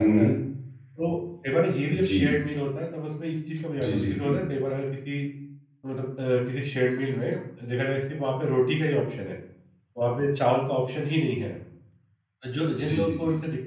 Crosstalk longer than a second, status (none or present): none